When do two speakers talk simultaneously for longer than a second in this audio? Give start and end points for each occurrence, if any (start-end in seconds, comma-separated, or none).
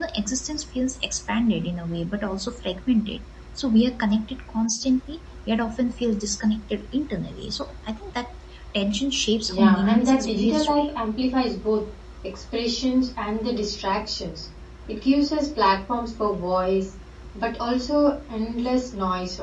9.5-10.9